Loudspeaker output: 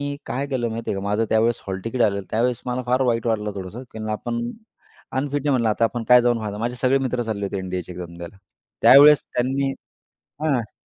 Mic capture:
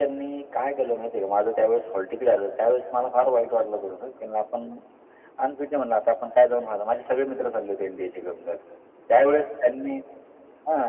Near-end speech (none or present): none